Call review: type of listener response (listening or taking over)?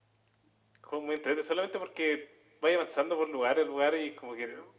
listening